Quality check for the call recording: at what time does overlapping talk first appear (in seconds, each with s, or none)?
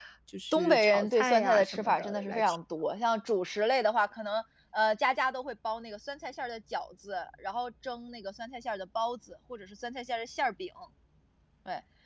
0.5 s